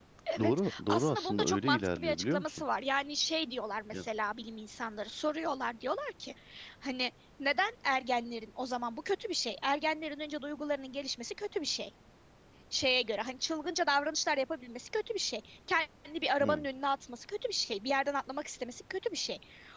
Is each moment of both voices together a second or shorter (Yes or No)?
No